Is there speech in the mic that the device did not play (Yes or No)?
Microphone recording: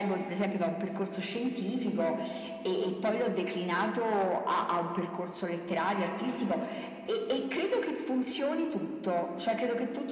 No